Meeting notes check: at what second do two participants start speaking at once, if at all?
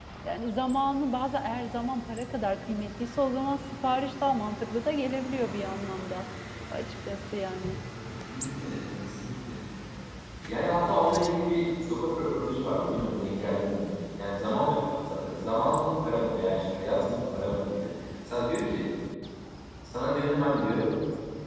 none

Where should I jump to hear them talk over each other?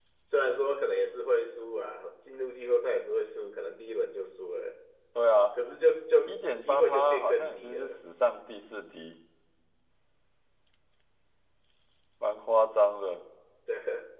6.3 s

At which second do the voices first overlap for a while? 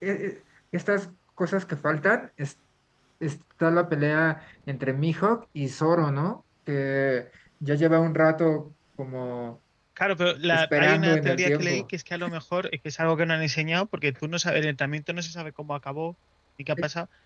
10.5 s

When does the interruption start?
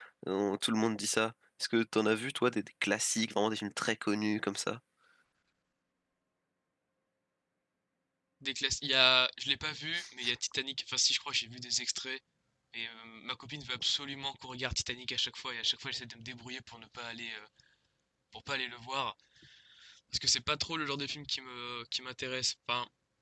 none

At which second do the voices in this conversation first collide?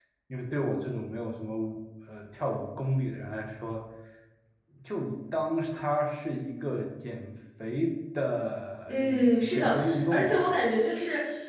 8.9 s

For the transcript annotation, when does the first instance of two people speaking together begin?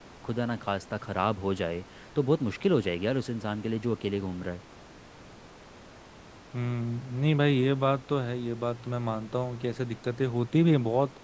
none

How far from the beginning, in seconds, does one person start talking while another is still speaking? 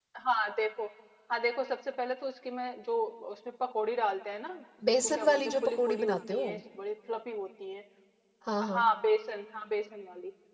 4.8 s

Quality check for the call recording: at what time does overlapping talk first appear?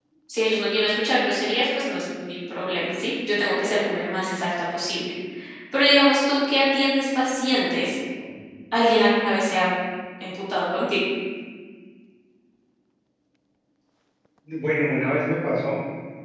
none

